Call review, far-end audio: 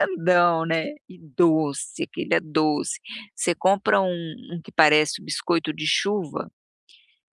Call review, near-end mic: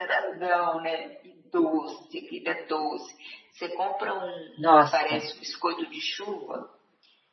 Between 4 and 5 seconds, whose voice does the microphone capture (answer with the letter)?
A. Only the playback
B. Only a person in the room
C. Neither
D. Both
D